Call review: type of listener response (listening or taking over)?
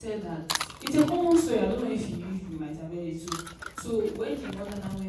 listening